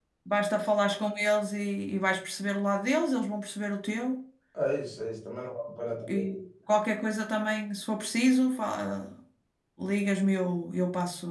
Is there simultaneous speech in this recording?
No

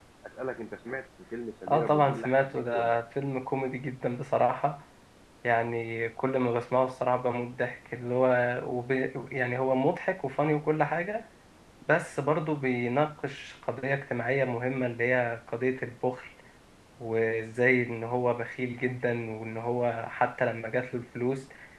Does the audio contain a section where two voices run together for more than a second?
Yes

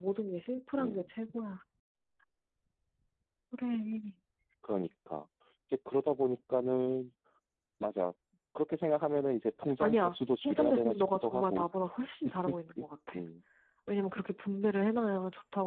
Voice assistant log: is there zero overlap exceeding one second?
No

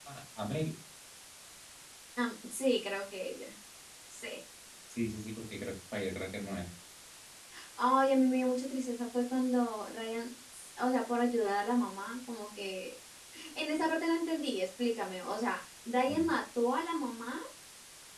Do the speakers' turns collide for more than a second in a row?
No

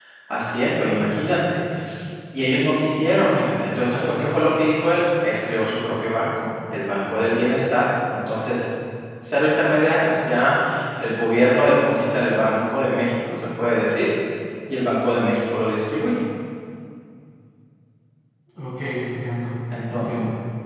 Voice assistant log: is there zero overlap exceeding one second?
Yes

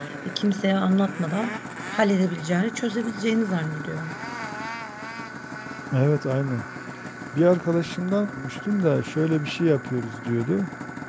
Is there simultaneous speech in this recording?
No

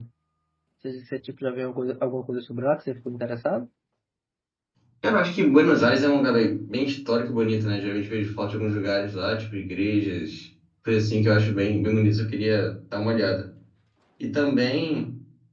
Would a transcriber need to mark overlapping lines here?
No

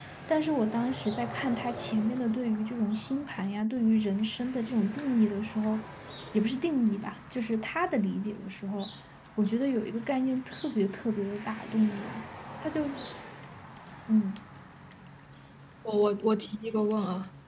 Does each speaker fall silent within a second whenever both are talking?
Yes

